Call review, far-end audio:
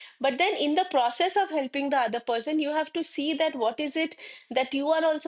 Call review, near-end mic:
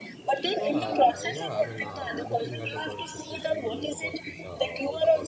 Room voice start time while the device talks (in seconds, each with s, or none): 0.5 s